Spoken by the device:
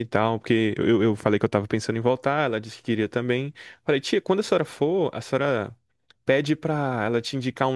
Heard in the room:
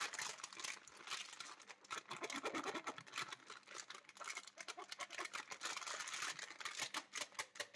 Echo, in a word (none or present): none